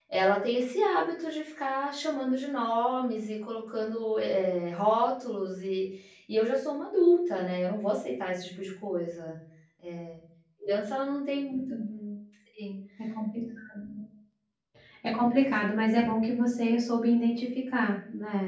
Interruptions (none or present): none